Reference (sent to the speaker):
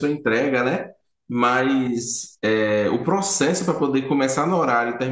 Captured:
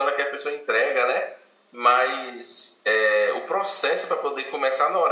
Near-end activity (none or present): none